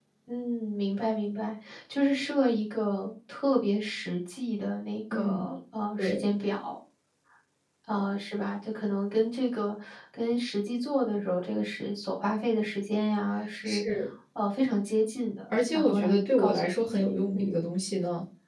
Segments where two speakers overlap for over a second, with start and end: 15.7-17.6

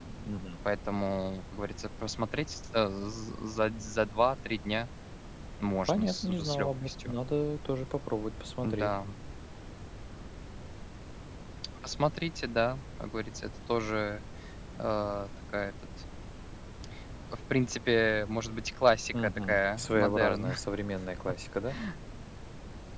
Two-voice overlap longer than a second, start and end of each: 5.9-7.2, 19.1-20.5

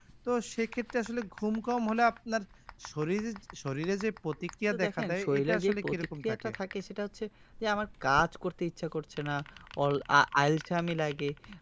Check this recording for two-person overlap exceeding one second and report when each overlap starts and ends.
4.7-6.5

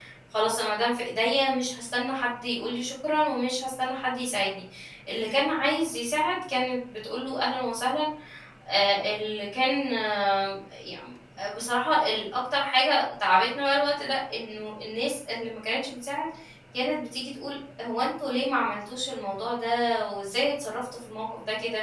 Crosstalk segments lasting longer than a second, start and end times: none

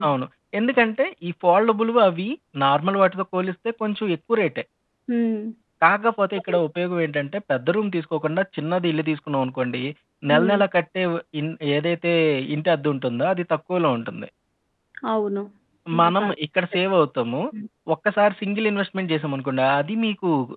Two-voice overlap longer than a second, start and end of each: none

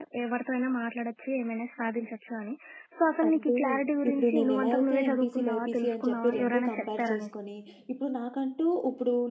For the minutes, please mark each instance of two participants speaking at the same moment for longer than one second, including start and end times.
4.1-7.3

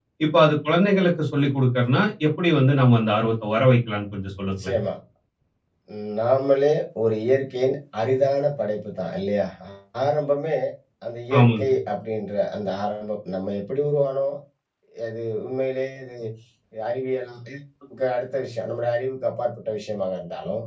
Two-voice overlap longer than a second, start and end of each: none

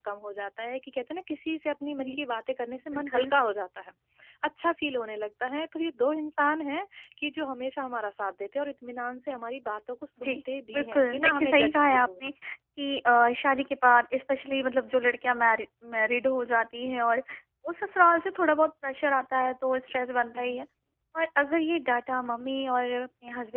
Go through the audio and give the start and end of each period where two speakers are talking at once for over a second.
10.7-12.1

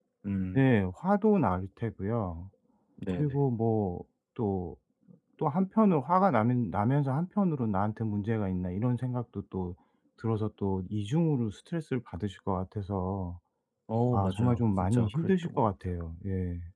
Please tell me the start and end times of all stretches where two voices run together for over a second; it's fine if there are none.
14.1-15.7

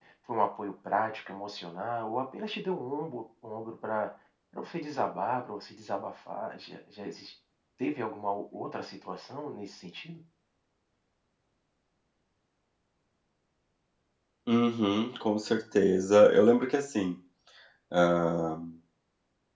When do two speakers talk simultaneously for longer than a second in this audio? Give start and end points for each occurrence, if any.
none

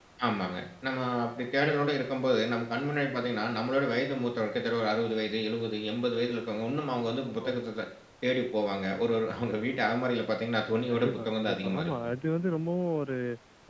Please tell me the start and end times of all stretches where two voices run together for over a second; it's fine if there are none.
10.9-12.1

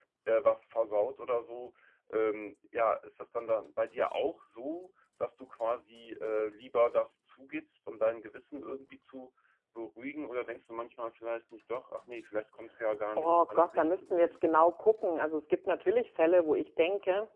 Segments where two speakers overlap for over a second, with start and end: 13.2-14.4

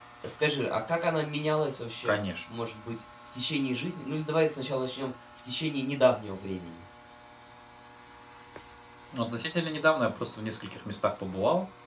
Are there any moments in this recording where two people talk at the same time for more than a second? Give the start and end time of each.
none

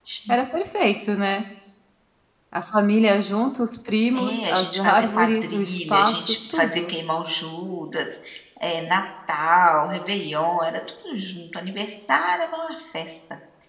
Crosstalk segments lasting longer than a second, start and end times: 4.2-6.9

